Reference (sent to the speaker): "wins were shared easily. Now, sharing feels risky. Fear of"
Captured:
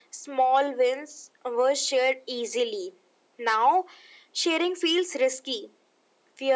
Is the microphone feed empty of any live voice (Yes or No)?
Yes